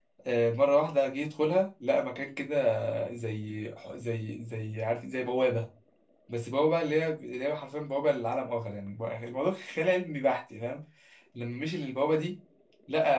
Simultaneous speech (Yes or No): No